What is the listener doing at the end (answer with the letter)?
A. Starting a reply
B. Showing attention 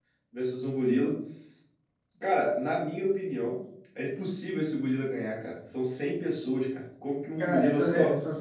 A